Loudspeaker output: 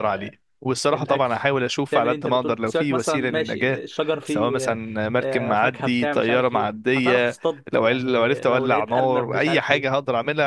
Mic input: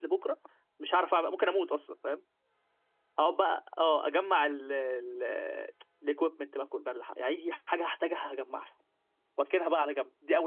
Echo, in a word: none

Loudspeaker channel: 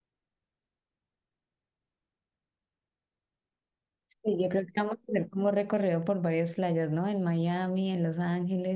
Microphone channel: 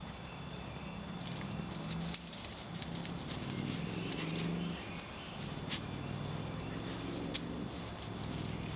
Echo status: none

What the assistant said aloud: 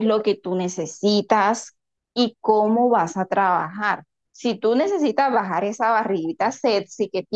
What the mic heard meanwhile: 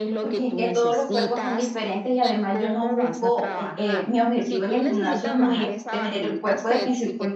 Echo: present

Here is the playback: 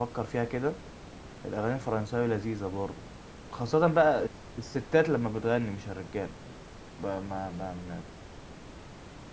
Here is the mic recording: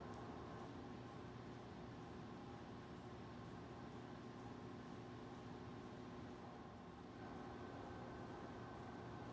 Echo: none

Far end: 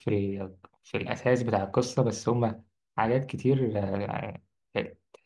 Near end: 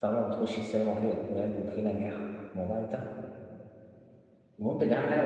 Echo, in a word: none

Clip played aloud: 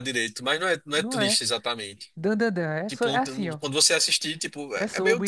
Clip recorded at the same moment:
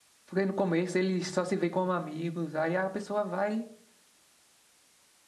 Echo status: none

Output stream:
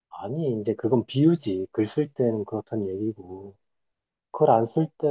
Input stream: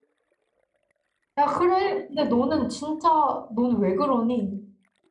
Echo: none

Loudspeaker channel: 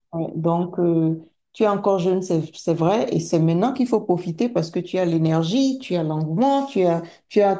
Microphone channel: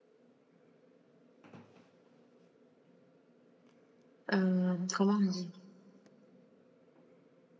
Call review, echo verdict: none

